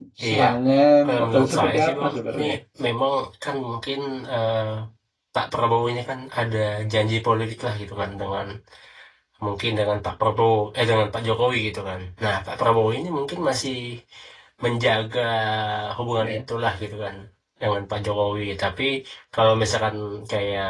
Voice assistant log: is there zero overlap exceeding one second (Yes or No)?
No